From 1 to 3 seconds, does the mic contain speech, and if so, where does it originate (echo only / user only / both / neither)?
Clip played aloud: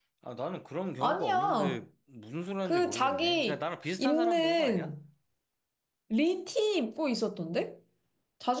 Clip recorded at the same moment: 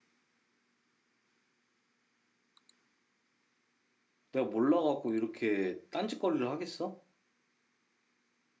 neither